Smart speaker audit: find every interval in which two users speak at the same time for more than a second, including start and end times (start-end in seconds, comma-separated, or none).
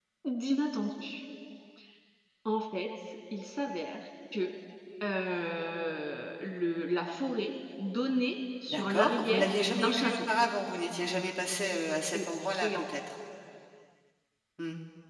8.7-10.2